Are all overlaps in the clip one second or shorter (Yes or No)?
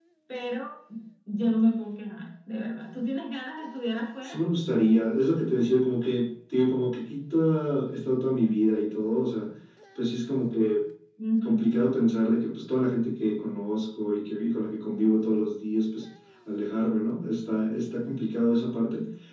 Yes